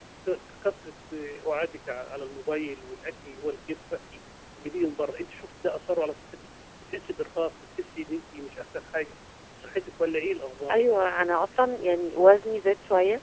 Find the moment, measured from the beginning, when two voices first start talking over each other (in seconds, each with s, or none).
none